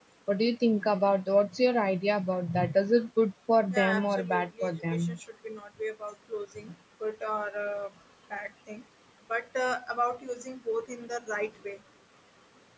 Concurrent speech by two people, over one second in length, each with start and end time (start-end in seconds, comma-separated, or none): 3.7-5.2